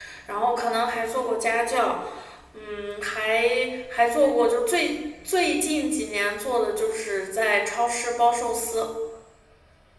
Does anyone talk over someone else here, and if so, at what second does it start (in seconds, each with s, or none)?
none